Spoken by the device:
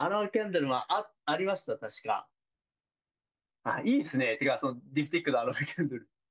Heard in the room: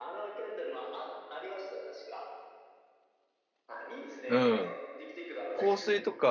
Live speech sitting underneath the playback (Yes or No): No